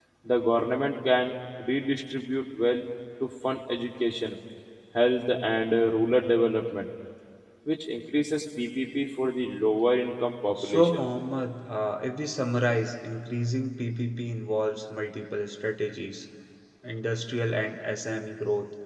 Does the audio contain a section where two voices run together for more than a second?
No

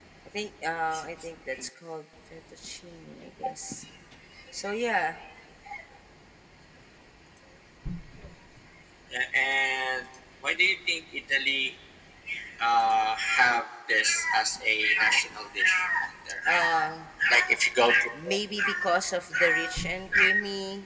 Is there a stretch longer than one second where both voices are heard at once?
No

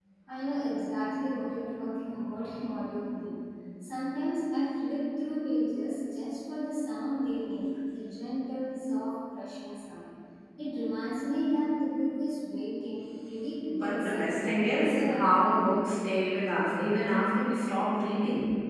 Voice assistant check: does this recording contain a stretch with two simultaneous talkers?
Yes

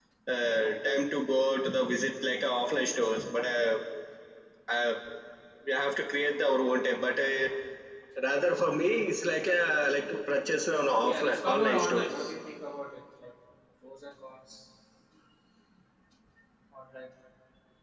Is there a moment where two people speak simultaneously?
Yes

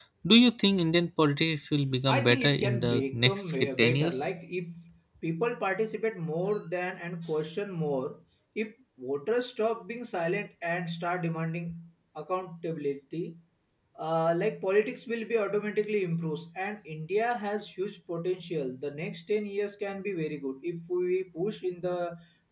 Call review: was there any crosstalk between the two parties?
Yes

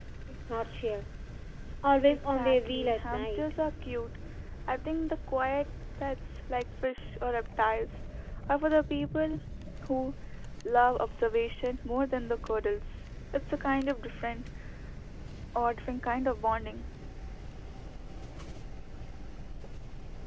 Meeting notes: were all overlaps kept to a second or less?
No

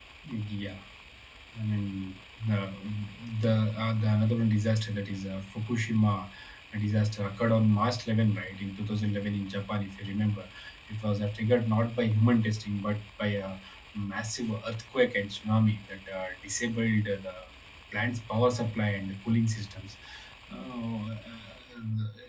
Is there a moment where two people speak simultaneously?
No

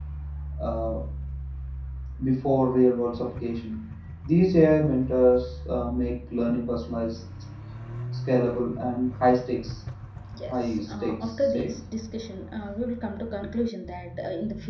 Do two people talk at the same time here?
Yes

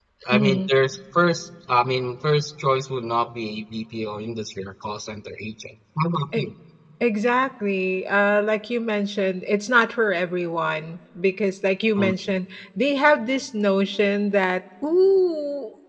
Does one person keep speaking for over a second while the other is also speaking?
No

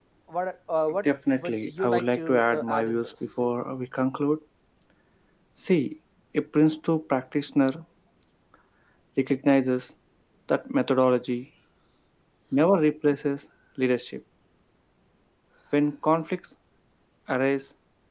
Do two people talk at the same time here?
Yes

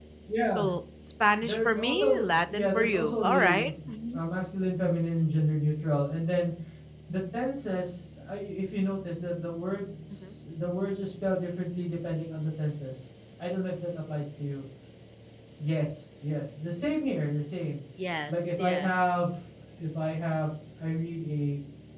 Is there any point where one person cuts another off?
Yes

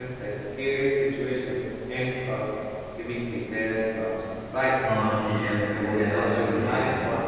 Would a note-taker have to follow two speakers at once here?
Yes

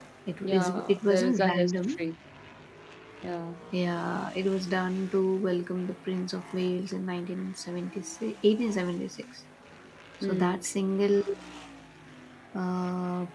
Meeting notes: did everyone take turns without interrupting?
No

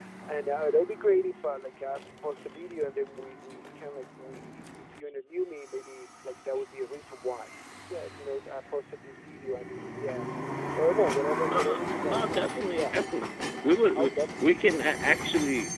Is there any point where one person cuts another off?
Yes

